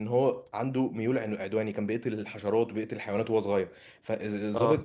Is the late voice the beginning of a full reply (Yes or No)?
No